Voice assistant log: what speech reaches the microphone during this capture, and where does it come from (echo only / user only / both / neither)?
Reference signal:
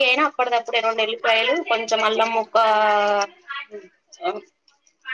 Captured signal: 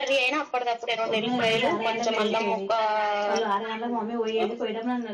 both